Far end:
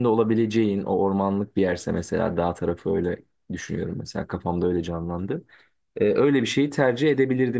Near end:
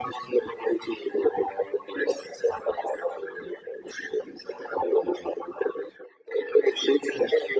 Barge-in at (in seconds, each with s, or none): none